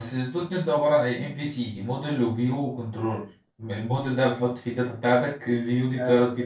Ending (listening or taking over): listening